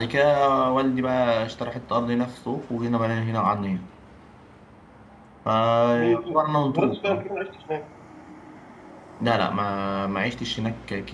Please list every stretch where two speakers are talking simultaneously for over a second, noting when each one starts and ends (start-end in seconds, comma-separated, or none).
5.9-7.2